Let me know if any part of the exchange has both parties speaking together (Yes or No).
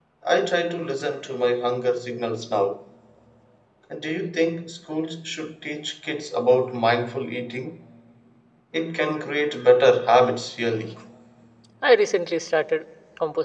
No